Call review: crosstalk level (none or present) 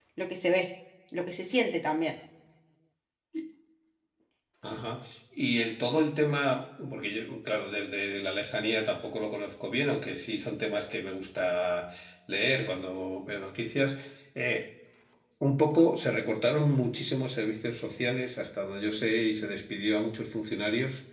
none